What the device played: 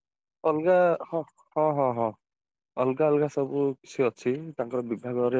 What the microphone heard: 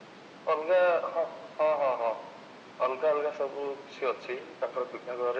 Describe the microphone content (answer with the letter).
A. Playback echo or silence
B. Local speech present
A